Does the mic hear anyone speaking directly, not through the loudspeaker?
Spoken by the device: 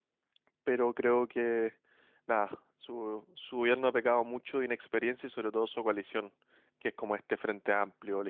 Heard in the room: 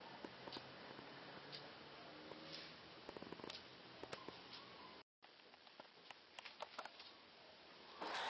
No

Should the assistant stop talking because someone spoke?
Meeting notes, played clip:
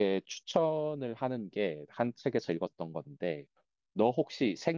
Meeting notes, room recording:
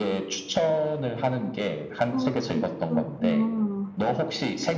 Yes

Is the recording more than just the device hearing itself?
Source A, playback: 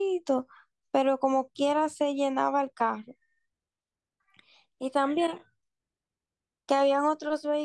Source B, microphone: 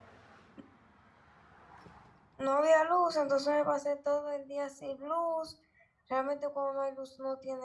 Yes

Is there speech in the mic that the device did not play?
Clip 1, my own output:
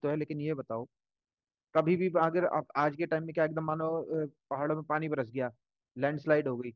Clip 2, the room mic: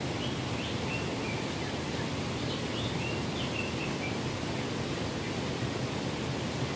No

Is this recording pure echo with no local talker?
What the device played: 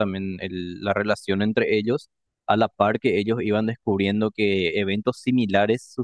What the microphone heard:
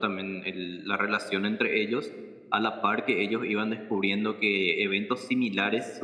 Yes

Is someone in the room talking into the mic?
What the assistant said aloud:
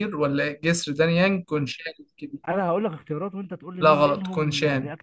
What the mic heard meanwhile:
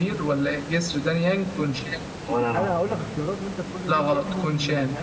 Yes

